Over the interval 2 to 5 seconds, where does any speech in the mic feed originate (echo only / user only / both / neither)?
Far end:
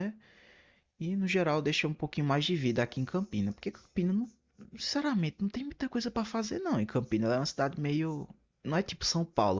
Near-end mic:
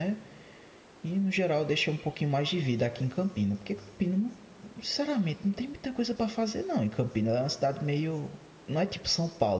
echo only